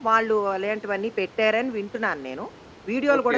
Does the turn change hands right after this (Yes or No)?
Yes